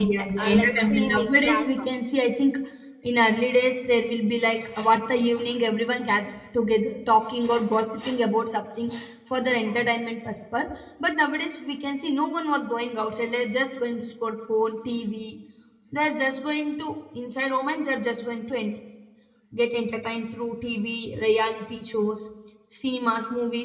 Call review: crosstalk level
present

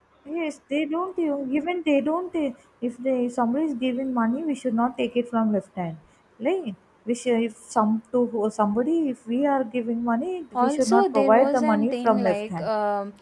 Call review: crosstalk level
present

